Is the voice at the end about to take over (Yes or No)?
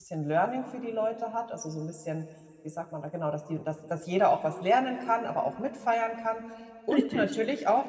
No